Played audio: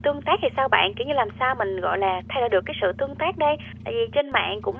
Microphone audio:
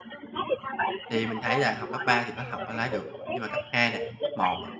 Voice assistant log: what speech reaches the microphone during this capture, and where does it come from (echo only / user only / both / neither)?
both